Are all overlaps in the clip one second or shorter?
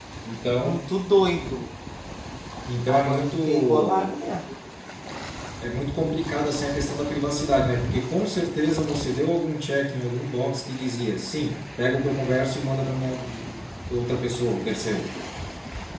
No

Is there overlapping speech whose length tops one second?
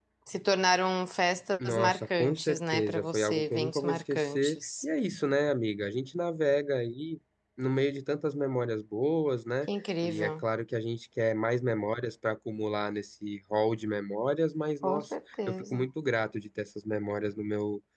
Yes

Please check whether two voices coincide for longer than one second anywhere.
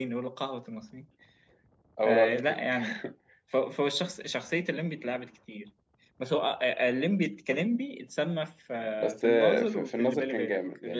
Yes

